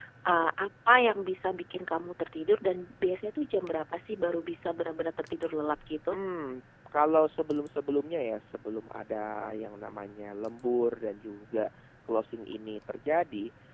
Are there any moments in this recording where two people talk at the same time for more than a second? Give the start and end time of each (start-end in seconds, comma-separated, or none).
none